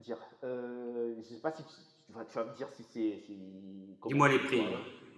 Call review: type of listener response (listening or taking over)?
taking over